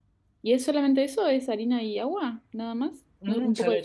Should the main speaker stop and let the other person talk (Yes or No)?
Yes